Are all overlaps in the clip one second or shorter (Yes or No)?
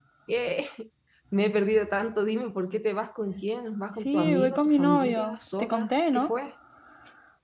No